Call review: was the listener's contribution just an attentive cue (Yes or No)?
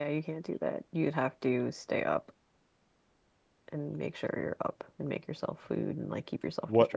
No